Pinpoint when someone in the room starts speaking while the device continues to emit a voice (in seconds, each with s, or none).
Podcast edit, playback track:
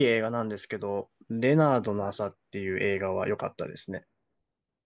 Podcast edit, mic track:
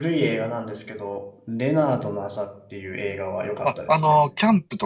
3.6 s